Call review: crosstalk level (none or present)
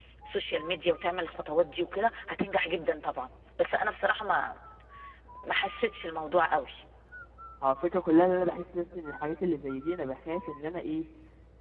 none